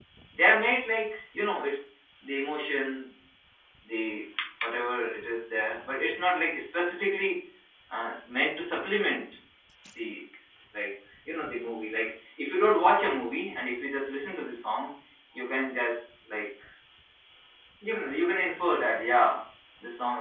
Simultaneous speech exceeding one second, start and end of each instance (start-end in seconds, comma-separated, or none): none